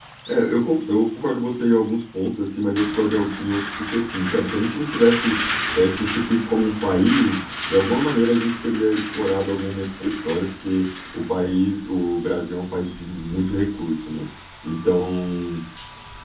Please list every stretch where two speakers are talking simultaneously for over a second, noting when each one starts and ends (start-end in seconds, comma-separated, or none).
none